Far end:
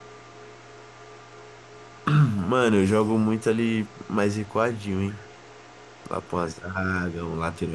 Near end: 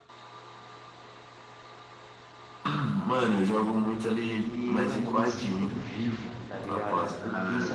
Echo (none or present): present